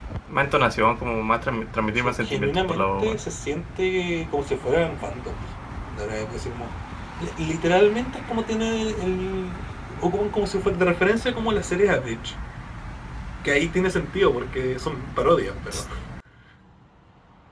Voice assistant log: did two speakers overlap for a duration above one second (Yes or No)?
Yes